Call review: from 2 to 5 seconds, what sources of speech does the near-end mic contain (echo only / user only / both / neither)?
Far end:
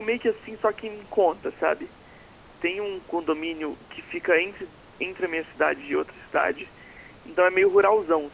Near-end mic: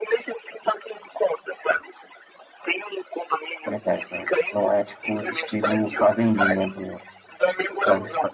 both